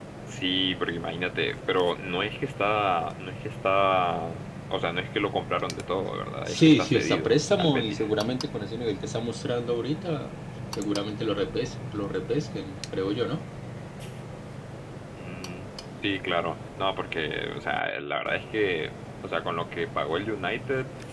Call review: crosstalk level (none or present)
present